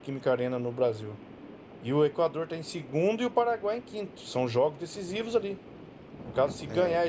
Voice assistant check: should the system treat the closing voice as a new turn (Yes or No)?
No